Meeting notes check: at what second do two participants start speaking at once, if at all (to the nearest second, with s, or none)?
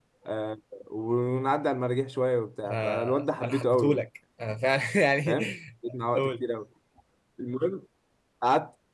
3 s